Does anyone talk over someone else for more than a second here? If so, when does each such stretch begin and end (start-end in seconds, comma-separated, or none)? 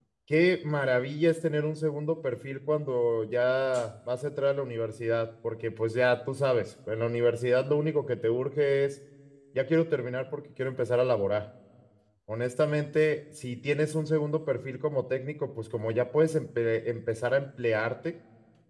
none